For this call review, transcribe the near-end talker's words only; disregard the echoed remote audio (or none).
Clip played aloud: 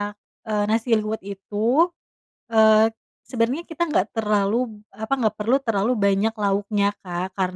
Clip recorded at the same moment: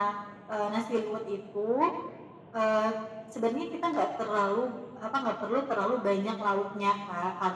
none